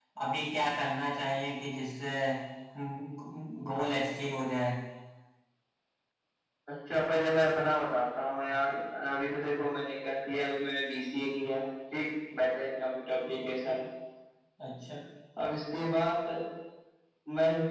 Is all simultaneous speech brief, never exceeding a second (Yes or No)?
Yes